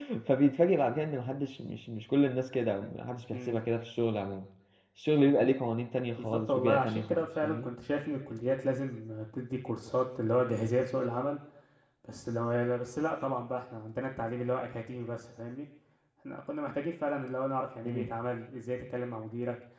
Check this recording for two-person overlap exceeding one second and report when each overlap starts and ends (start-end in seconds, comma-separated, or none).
6.2-7.7